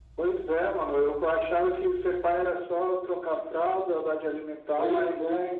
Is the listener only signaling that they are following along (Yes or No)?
Yes